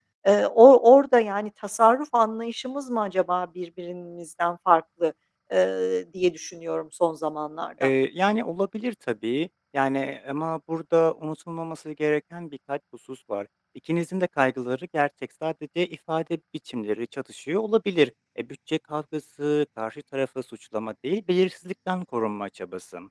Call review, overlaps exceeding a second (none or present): none